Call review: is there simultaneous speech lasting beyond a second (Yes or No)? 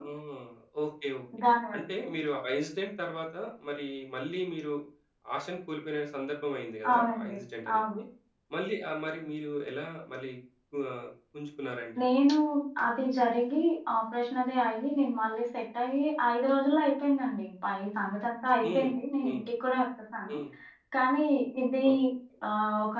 No